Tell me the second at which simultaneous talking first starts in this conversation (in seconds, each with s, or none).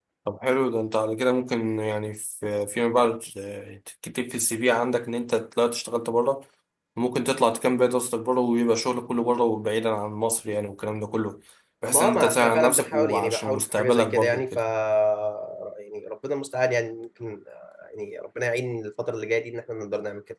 11.9 s